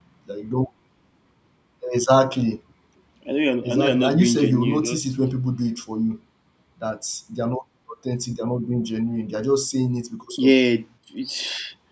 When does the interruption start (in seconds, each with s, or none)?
3.6 s